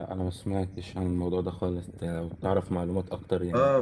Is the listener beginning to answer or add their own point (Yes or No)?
Yes